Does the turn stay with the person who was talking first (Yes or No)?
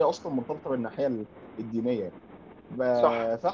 Yes